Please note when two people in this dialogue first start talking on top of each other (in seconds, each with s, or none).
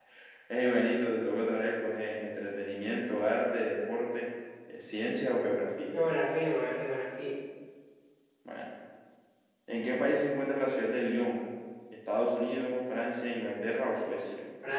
none